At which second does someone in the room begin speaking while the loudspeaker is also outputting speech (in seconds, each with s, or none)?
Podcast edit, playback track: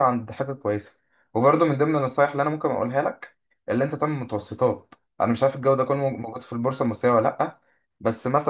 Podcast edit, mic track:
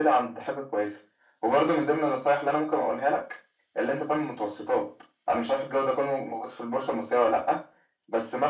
none